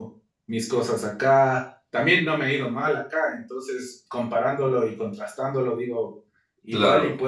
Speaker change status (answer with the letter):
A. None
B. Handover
A